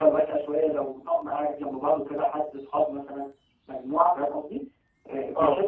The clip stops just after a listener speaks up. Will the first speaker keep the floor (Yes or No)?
Yes